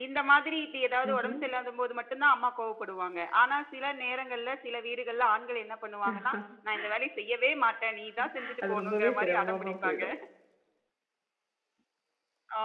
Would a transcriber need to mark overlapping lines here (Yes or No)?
Yes